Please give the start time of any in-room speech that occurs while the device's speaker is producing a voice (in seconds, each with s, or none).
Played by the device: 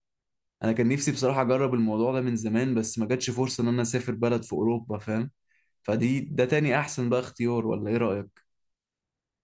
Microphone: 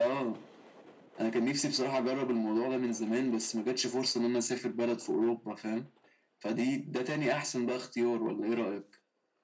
none